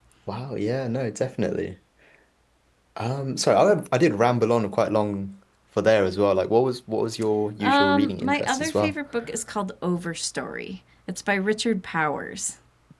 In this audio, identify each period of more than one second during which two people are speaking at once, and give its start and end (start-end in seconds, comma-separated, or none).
7.6-8.9